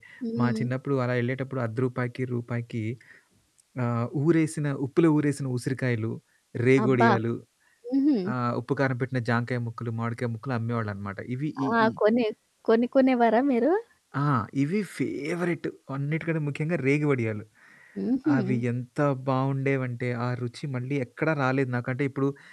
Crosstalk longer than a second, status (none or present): none